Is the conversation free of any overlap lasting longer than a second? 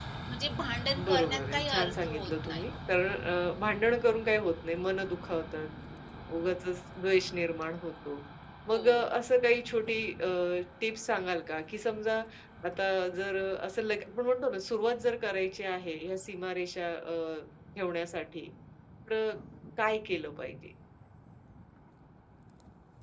No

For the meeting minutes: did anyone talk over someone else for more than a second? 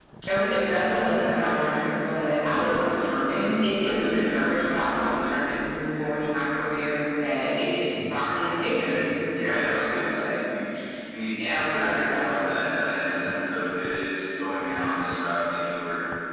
Yes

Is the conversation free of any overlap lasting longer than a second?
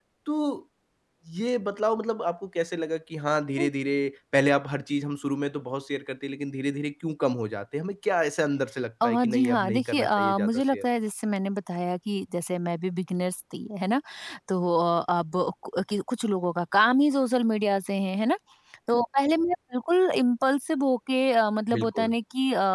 No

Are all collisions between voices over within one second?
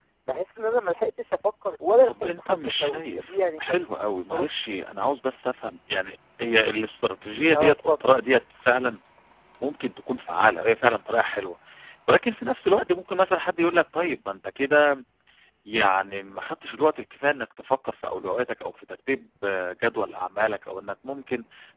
No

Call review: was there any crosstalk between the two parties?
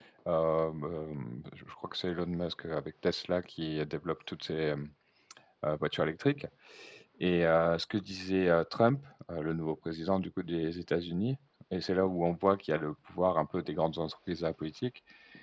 No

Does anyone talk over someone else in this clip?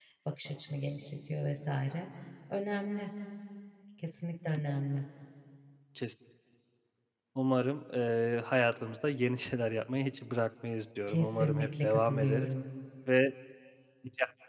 Yes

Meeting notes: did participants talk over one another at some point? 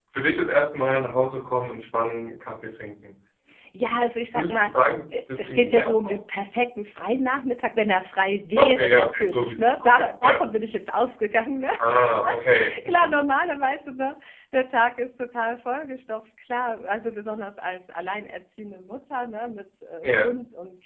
Yes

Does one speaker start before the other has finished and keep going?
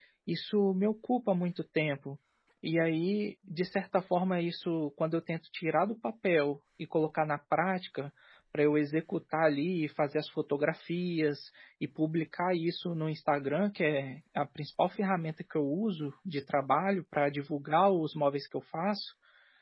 No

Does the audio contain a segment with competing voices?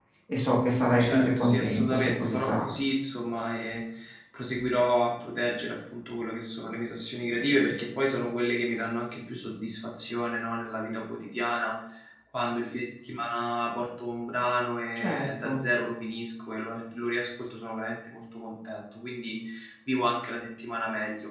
Yes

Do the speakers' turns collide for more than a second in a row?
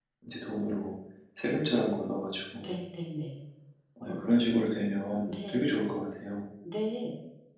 No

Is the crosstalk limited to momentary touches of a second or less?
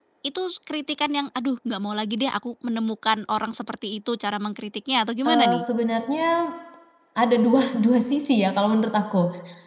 Yes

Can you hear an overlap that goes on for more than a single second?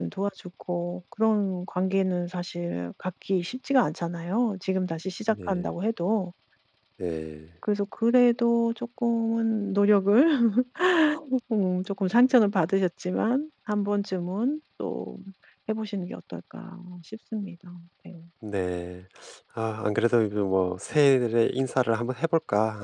No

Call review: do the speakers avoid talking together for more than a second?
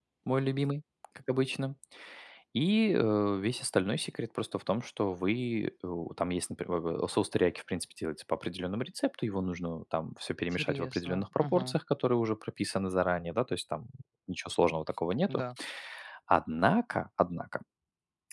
No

